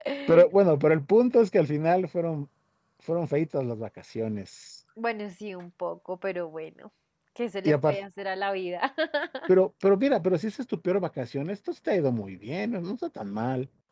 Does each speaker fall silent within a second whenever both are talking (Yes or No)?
Yes